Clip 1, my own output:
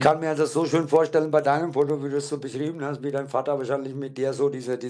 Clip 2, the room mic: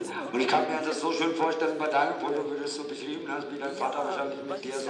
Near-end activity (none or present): present